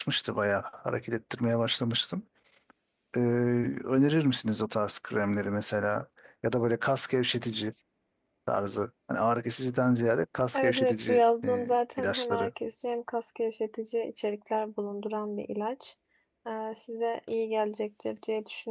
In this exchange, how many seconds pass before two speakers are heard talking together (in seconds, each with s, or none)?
10.5 s